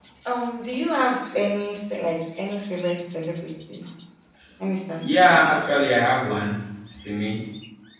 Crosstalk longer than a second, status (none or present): none